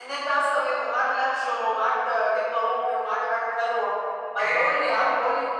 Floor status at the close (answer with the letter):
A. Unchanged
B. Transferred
A